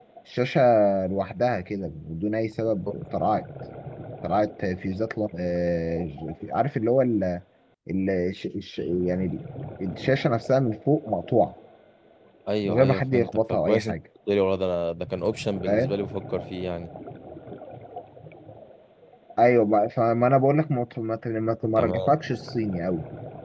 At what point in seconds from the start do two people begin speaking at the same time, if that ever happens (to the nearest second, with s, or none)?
13 s